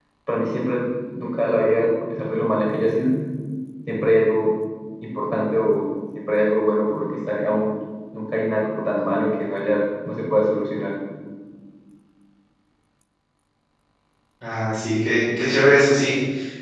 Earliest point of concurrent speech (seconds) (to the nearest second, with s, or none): none